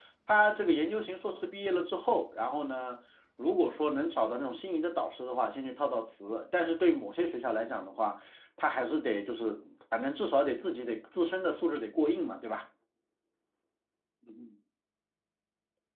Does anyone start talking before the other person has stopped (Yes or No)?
No